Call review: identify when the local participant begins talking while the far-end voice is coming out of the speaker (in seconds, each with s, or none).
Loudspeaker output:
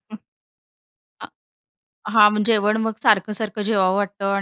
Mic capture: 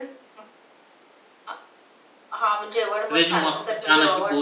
3.1 s